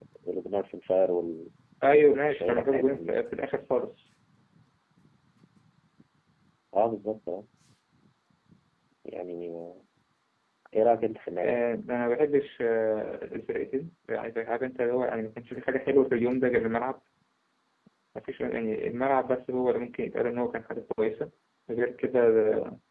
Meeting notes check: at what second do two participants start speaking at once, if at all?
1.8 s

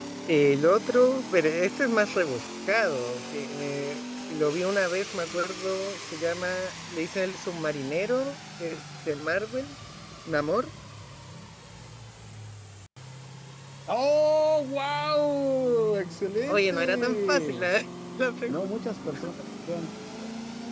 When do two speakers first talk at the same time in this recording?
16.5 s

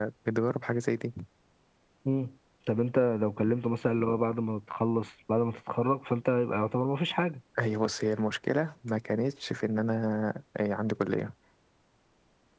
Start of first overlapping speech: none

